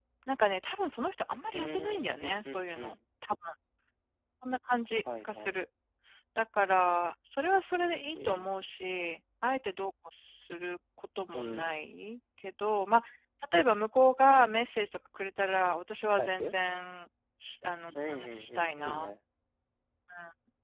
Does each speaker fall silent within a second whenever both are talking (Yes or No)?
No